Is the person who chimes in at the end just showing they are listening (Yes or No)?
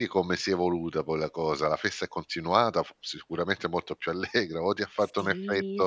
No